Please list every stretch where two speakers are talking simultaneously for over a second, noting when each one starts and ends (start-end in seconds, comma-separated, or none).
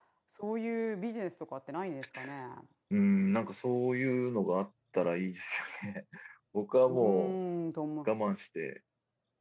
none